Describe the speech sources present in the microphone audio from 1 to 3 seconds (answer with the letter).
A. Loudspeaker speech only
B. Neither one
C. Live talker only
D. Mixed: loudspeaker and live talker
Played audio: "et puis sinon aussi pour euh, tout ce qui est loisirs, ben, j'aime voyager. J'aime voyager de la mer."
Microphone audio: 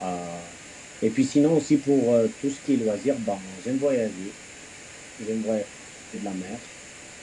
A